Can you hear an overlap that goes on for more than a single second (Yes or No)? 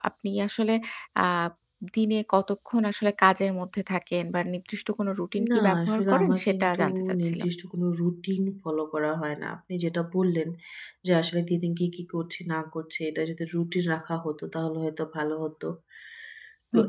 Yes